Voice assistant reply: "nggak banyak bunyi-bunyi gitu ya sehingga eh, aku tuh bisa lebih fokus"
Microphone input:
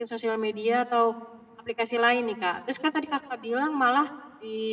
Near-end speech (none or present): present